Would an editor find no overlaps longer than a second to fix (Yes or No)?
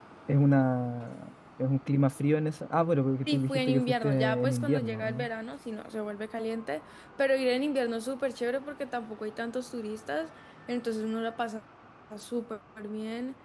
No